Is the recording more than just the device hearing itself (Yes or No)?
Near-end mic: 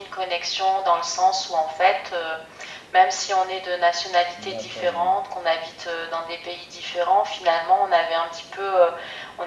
Yes